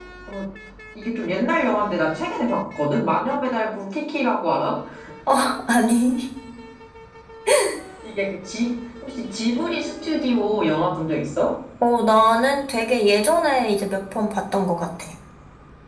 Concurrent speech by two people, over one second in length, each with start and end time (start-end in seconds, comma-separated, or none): none